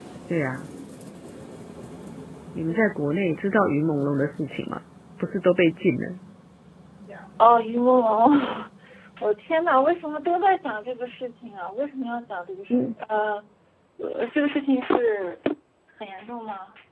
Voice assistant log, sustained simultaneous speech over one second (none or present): none